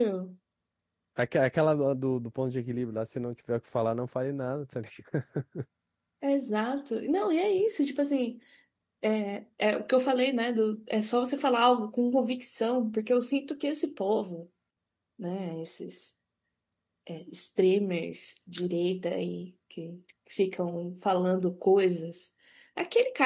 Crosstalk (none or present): none